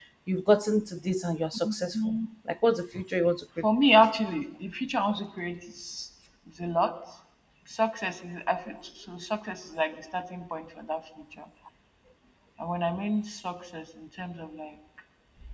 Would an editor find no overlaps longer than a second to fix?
Yes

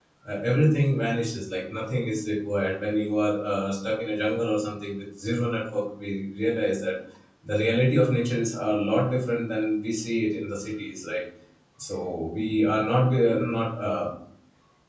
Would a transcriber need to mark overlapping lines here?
No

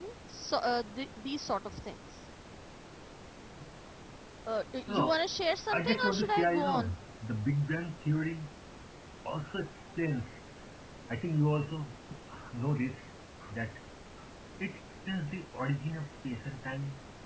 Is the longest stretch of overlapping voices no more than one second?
No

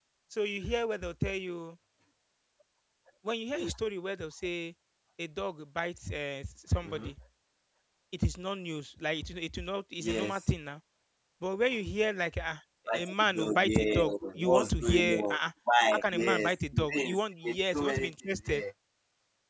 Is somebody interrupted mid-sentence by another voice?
Yes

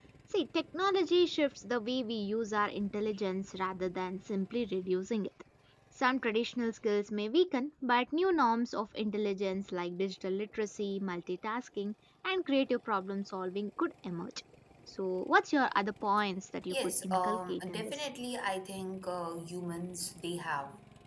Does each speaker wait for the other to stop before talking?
No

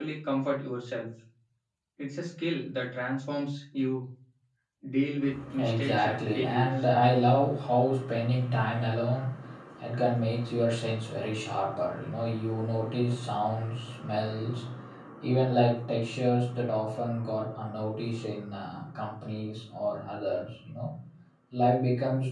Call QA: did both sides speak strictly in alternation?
No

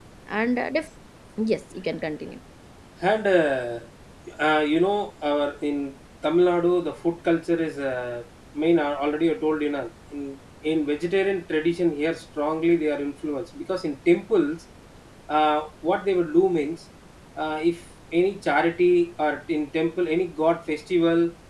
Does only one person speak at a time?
Yes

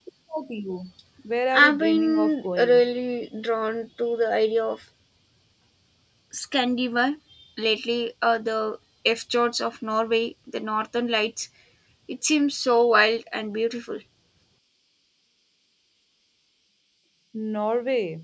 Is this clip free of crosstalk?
No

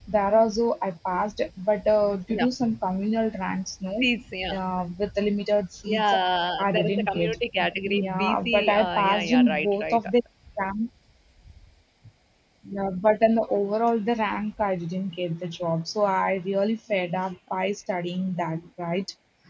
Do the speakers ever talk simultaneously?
Yes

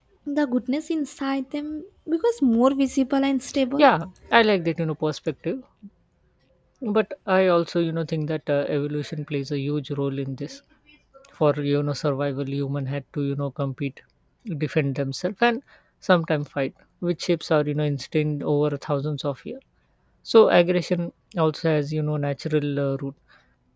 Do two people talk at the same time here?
No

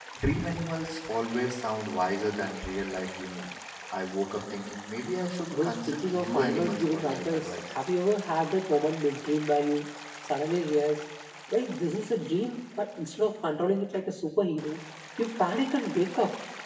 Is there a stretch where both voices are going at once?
Yes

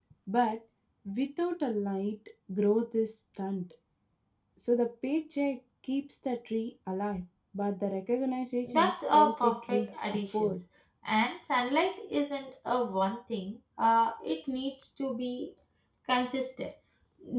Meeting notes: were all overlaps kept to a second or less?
No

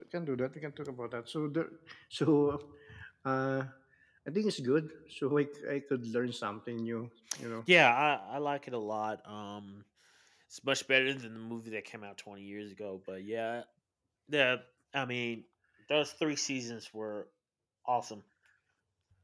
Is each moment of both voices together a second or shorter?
Yes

